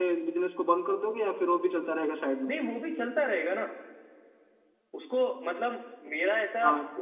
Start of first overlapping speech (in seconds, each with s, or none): none